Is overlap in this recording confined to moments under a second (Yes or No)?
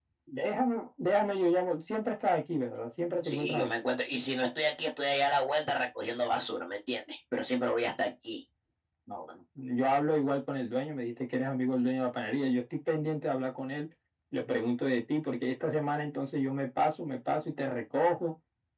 Yes